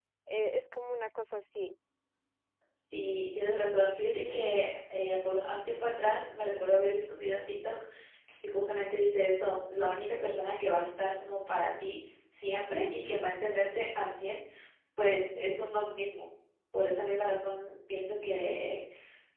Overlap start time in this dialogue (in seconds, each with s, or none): none